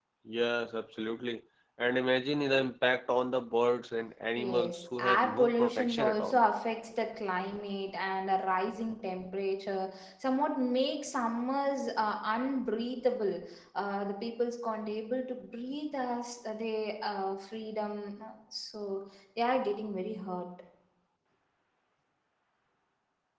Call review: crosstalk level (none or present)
present